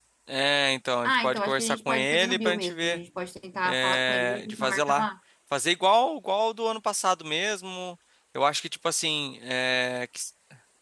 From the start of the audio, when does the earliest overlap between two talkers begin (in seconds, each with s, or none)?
1.0 s